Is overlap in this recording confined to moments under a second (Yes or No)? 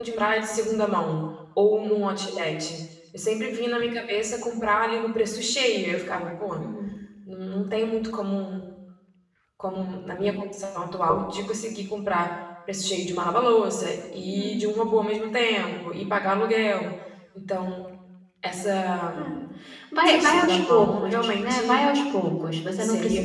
No